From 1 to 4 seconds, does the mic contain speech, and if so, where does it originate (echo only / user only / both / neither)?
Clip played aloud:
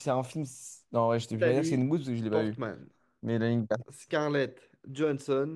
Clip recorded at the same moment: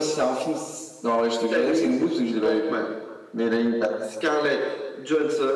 echo only